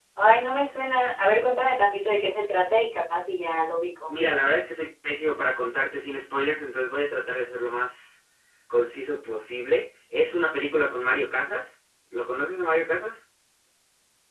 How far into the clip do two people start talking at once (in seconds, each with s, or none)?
none